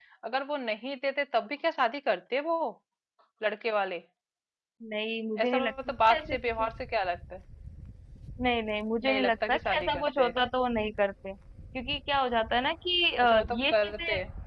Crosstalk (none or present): present